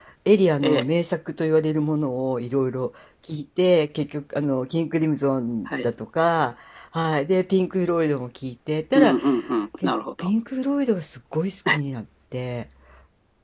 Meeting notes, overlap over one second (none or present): none